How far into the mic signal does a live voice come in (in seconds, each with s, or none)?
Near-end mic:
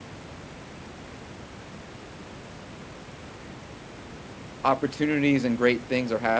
4.6 s